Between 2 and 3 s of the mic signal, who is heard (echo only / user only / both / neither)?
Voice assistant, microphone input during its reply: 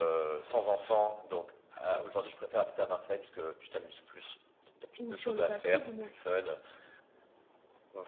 echo only